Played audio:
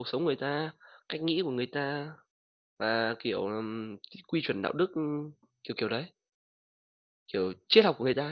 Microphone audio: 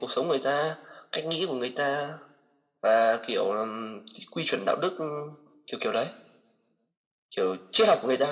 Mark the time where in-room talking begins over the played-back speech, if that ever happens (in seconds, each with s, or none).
none